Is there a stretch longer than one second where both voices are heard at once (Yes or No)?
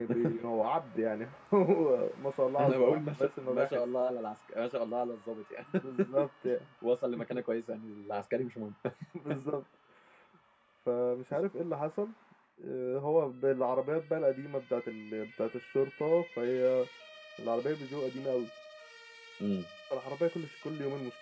Yes